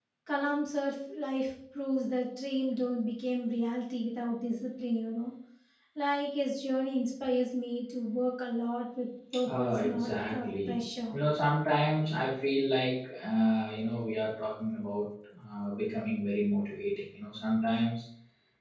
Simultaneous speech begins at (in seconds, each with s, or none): 9.3 s